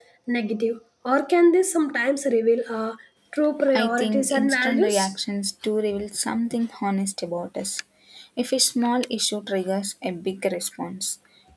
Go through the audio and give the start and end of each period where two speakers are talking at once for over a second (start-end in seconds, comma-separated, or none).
3.7-5.1